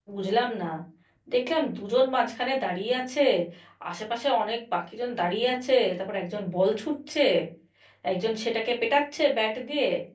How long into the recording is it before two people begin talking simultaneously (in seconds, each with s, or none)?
none